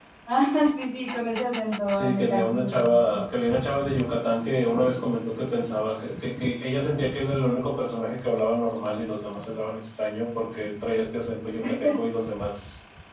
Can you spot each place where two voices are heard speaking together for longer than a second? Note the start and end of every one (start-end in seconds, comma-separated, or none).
1.9-3.2